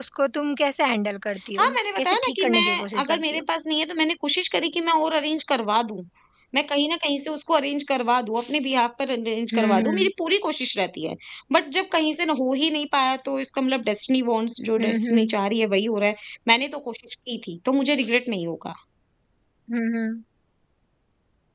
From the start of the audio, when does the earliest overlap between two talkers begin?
1.6 s

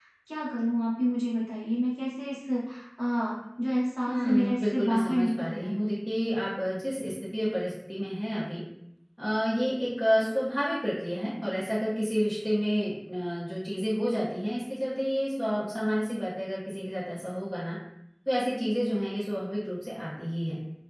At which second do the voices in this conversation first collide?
4.1 s

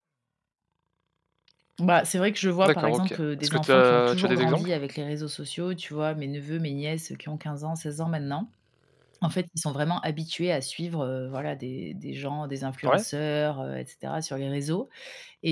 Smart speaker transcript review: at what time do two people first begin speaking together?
2.6 s

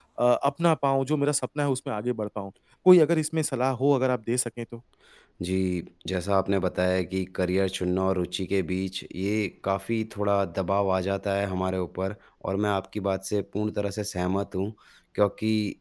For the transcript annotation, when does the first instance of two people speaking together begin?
none

